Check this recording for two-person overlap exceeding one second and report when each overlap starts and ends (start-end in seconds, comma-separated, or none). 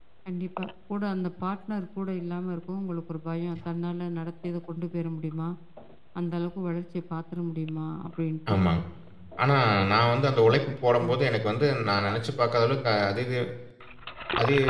none